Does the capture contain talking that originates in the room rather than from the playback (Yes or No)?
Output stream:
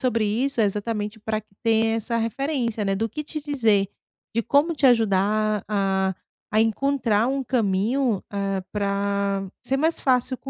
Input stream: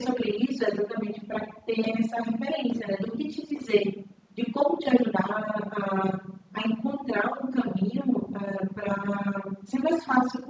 No